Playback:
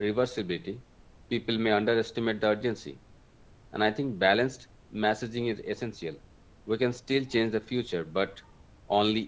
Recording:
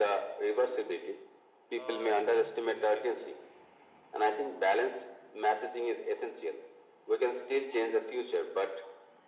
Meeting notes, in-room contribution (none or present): present